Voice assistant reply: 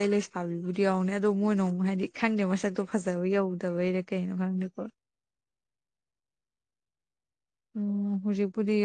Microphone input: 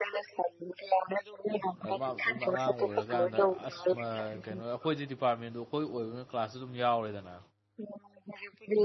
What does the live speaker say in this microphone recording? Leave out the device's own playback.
ꯑꯥ ꯃꯥ ꯃꯇꯣꯝꯗ ꯑꯉꯥꯡ ꯑꯣꯏꯔ ꯀꯥꯟꯗ ꯑꯁ ꯃꯥ ꯀꯩꯅꯣ ꯑꯩꯈꯣꯏꯗꯤ ꯗꯤꯄꯥꯔꯠꯃꯦꯟꯗꯣ ꯑꯩꯈꯣꯏ ꯑꯣꯏꯕꯅ ꯀ꯭ꯂꯥꯁꯇꯣ ꯑꯗꯨꯝ ꯌꯥꯎꯔꯦꯗꯅ

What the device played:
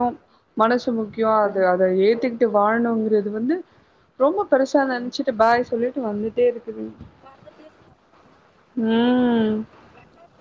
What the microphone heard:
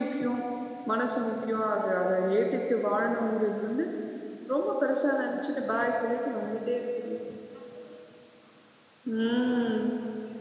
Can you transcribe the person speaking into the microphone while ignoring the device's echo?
none

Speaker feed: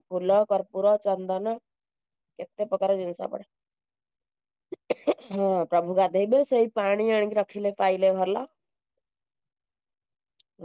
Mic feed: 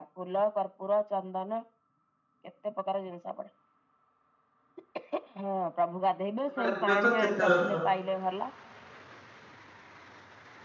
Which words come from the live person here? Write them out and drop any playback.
ହଁ ଏବେ ତ ତିନିଟା ରଥ।

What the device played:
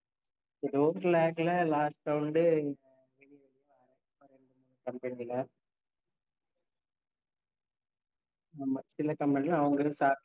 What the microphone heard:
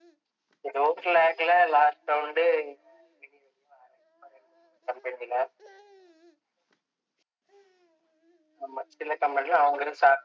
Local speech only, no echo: none

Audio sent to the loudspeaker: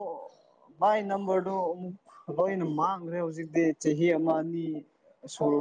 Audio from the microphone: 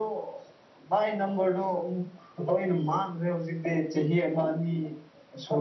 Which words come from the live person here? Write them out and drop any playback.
none

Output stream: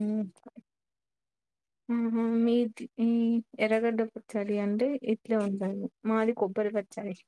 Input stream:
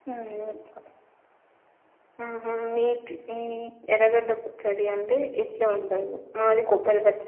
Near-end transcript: none

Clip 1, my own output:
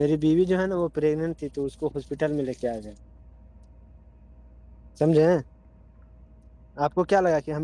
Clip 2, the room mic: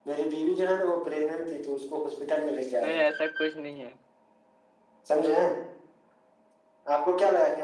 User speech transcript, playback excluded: نہیں ایسا کچھ نہیں ہے

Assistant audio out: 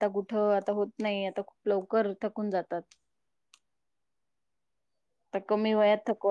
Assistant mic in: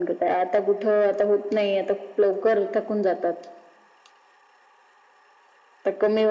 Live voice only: none

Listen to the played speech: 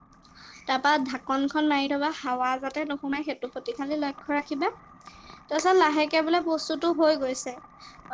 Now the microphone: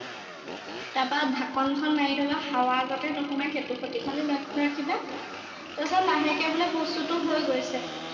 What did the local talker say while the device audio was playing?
none

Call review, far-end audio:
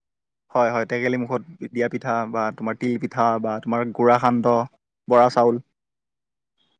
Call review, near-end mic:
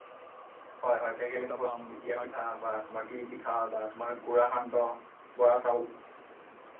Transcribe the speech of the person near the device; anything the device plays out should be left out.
উত্তাপাম কিবা

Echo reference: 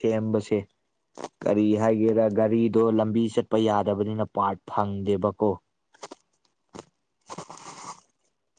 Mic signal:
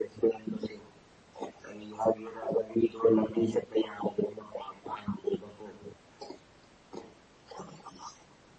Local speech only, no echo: none

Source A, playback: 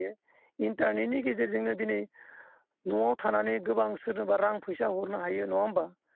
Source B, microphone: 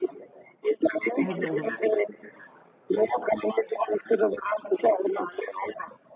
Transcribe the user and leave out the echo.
हायग्रा

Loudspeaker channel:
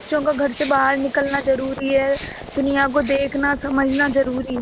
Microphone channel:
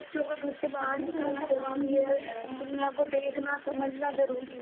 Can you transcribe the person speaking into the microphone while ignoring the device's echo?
ہم بھی تھوڑا سا کام ہی کر رہے ہیں

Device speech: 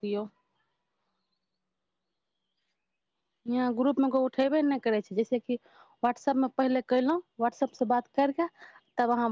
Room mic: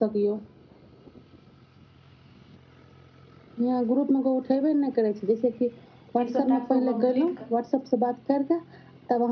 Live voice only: तीस स ास् कम्प्ली

